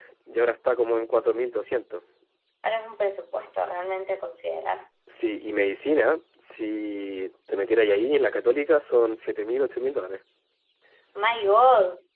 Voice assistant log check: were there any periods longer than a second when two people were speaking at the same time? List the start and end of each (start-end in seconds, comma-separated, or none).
none